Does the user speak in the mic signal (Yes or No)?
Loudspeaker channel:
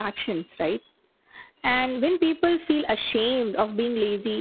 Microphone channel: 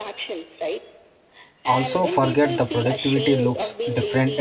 Yes